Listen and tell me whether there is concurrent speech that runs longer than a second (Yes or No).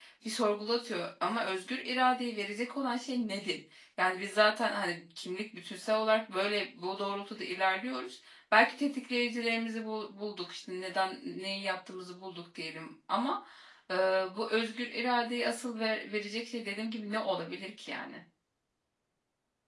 No